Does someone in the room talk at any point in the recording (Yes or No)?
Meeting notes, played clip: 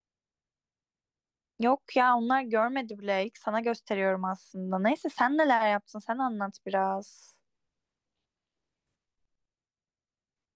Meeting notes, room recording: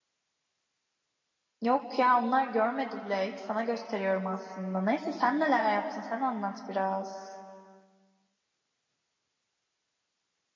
No